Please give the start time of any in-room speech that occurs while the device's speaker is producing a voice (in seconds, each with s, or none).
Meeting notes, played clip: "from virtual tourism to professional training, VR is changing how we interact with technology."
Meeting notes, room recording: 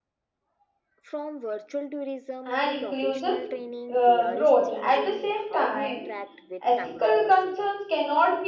2.4 s